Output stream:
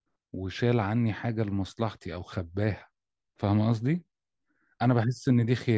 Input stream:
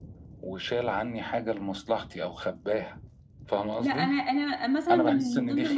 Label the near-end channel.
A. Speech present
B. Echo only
A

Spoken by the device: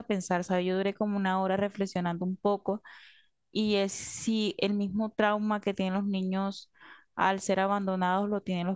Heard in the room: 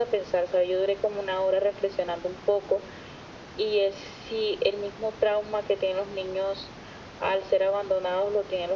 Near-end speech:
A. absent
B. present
A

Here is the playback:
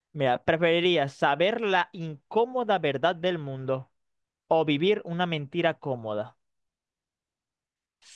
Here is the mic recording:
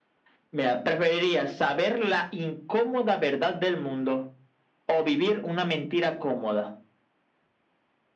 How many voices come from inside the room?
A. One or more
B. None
B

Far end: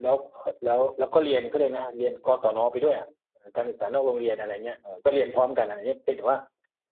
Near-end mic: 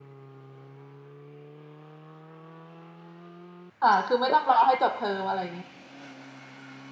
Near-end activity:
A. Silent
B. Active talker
B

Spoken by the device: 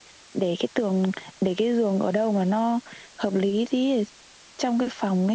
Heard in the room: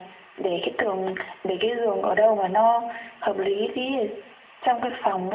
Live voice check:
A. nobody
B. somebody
A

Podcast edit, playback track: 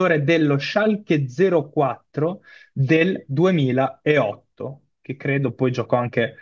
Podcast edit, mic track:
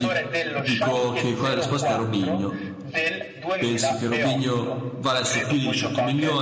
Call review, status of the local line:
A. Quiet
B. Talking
B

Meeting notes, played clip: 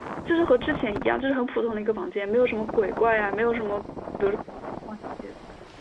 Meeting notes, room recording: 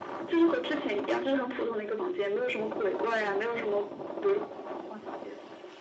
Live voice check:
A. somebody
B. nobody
B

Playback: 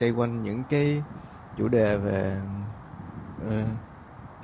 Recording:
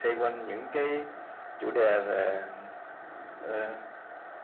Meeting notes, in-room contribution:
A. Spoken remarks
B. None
B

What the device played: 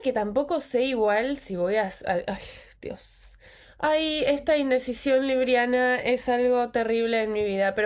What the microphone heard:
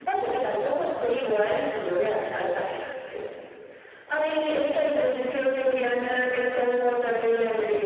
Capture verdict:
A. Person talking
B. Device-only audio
A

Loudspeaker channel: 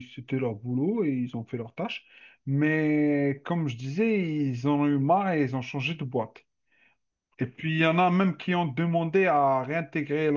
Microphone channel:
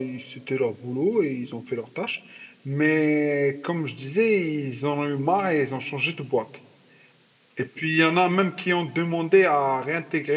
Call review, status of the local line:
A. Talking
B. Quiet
B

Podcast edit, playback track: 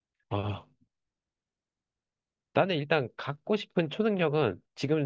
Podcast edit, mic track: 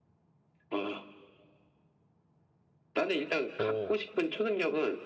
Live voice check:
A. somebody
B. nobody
A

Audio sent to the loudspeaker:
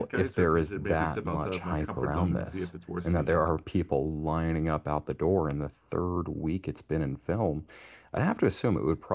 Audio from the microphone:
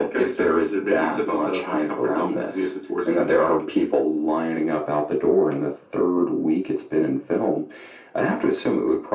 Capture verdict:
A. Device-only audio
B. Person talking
A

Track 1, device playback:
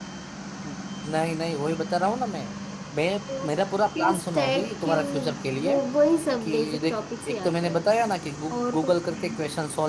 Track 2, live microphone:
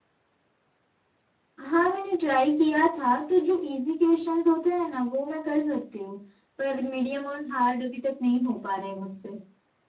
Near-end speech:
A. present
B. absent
A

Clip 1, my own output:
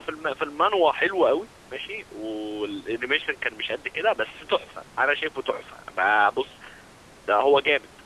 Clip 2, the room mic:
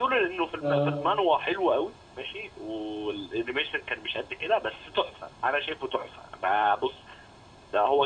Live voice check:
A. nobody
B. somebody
B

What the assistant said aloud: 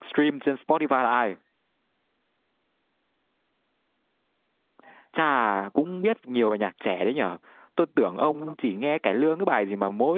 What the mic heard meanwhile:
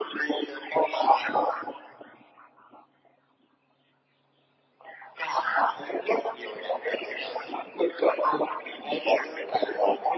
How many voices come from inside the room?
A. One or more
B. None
B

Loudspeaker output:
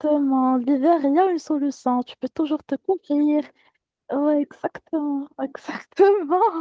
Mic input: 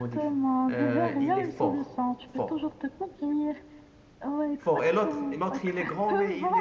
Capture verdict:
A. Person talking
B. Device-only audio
A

